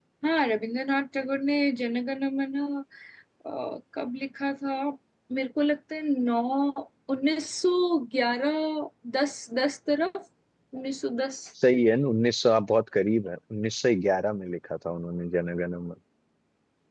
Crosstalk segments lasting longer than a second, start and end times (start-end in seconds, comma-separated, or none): none